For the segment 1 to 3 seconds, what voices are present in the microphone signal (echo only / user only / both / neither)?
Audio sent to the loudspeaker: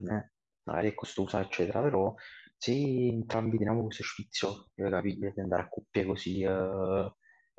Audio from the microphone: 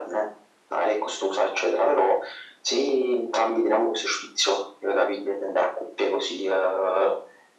echo only